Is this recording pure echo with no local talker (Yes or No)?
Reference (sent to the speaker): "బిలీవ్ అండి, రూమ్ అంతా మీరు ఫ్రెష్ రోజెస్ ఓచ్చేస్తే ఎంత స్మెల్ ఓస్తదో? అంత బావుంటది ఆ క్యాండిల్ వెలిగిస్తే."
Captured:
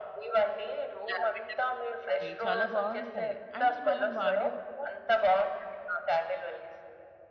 No